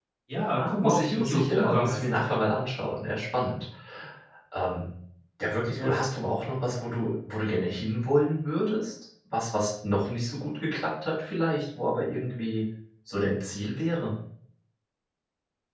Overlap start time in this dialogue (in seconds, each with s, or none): 0.5 s